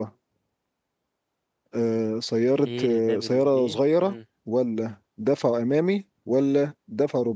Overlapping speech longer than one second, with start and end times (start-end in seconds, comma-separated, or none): 2.6-4.1